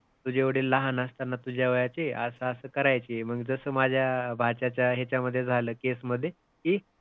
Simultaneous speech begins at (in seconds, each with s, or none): none